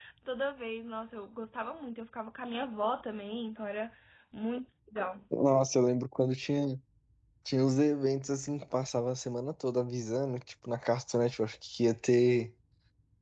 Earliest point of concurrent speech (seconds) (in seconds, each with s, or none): none